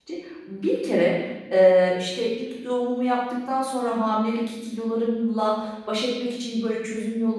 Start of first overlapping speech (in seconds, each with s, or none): none